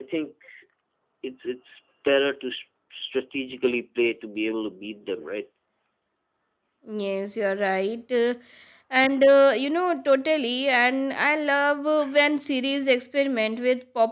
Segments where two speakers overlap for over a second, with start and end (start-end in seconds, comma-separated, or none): none